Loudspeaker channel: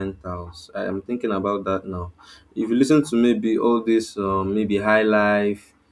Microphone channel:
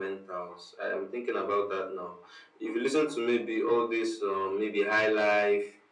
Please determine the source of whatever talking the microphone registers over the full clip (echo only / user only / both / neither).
echo only